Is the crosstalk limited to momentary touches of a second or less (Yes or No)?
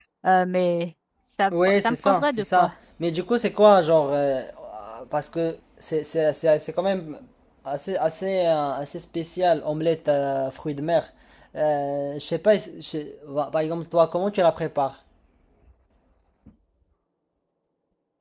No